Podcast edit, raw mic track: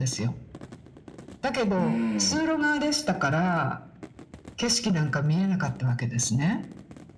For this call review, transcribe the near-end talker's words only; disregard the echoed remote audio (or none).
うーん、